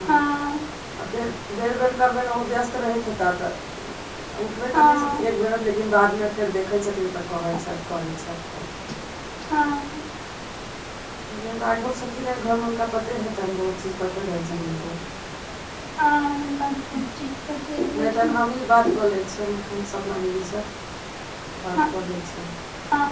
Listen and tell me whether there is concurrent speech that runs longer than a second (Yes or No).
No